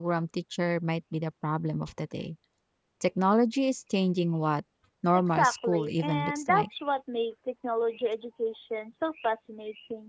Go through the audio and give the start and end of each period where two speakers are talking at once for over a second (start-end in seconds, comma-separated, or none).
5.3-6.7